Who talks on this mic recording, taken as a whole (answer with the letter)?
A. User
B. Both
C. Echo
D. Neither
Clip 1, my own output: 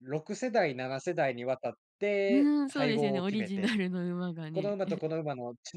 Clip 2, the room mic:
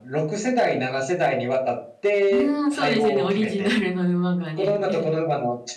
C